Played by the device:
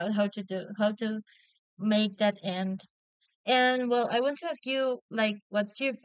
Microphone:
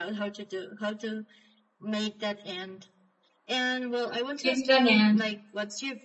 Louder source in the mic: user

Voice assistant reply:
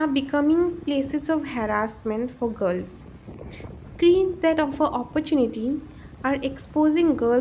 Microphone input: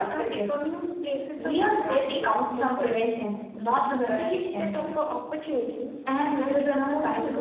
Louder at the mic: user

